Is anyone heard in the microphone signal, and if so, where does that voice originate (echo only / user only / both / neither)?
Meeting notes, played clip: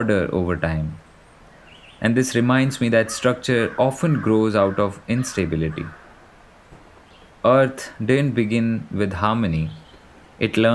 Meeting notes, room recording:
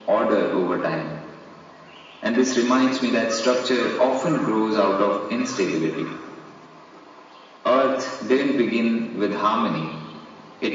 echo only